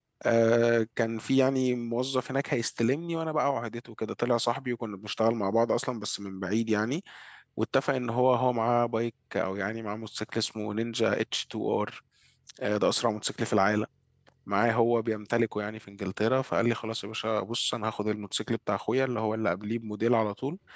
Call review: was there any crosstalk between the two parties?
No

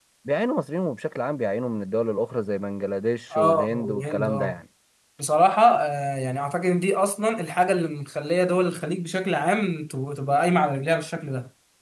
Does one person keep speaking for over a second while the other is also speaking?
Yes, from 3.3 s

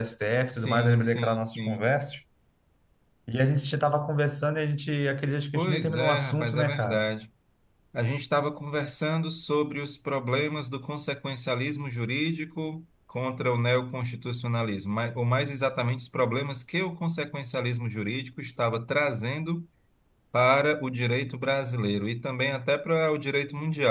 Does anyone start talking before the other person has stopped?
Yes, from 0.5 s

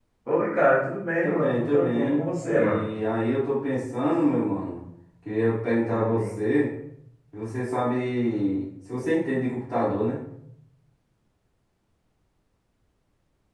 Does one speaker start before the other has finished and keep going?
Yes, from 1.2 s

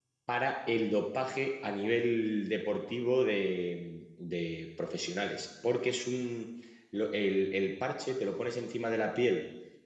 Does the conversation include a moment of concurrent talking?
No

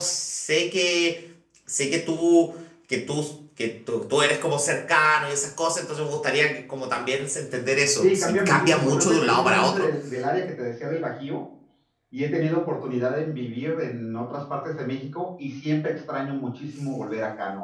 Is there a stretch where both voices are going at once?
Yes, from 8.0 s

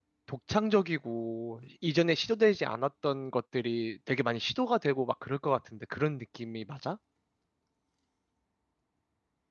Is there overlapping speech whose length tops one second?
No

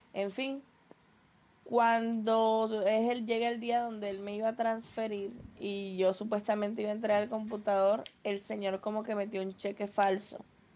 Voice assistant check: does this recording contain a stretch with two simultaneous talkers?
No

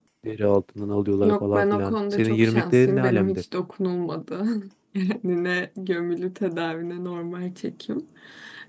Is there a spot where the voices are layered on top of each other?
Yes, from 1.2 s

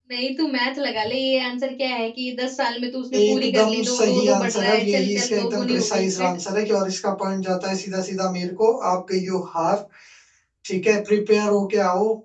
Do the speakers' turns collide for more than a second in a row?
Yes, from 3.1 s

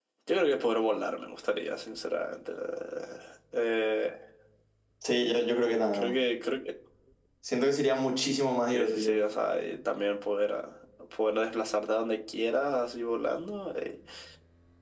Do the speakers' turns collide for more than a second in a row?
No

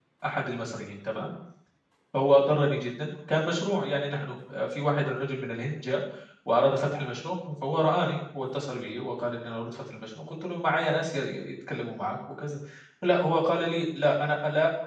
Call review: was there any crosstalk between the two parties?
No

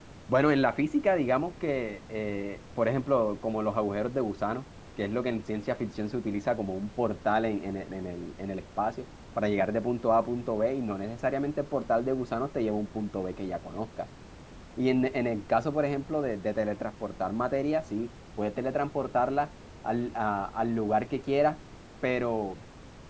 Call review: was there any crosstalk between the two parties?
No

